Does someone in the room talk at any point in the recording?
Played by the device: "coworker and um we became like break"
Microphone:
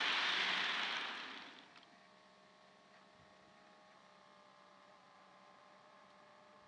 No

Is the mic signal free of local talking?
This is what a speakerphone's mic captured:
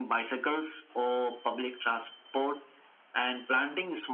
Yes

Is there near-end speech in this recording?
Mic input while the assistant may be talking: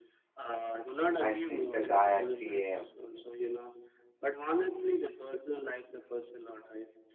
Yes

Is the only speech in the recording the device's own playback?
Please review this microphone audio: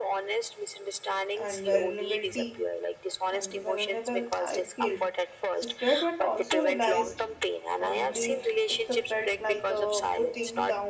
No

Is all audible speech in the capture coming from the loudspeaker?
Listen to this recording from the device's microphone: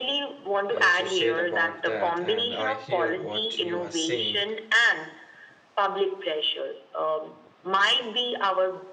No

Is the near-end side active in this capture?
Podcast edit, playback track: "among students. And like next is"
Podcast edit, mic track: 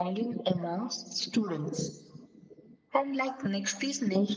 No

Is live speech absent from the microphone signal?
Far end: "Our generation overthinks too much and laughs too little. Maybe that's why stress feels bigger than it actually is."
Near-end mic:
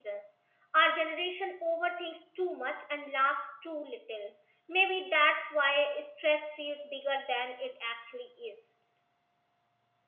Yes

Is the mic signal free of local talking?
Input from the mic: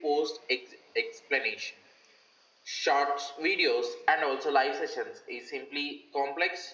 Yes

